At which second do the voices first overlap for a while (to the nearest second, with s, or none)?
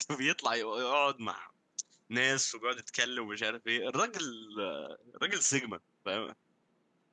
none